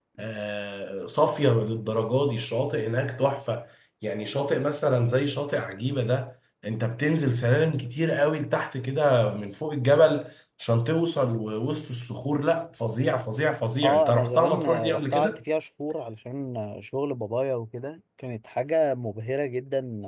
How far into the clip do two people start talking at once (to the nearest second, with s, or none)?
14 s